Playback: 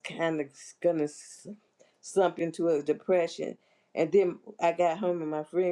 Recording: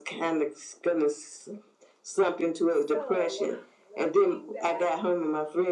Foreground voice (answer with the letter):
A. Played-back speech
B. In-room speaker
A